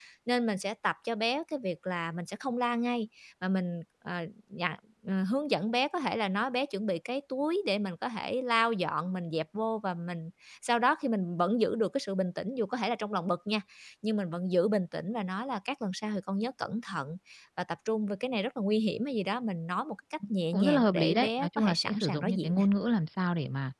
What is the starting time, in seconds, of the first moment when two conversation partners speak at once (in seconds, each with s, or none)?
20.5 s